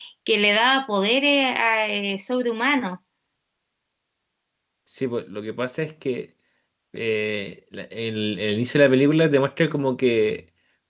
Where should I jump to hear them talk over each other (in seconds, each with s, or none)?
none